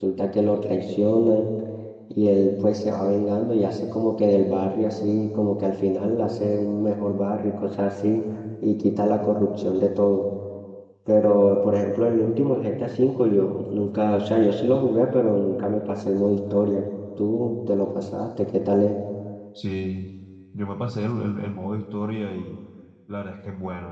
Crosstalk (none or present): none